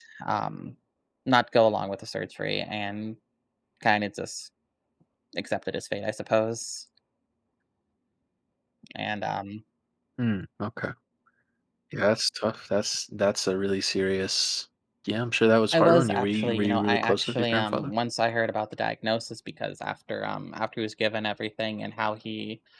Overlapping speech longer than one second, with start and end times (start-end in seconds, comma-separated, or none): 15.7-17.9